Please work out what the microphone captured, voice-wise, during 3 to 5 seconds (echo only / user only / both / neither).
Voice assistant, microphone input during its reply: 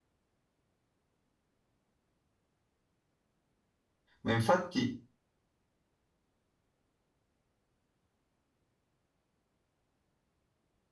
user only